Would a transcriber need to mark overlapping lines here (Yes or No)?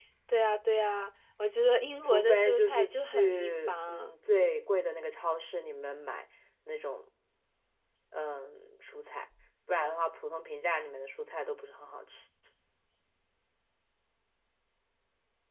Yes